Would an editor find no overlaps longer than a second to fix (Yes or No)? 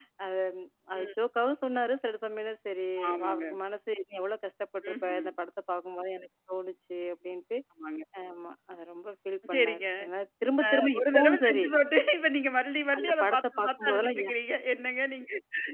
No